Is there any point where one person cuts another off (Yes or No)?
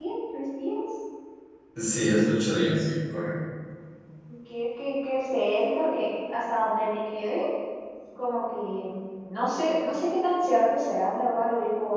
No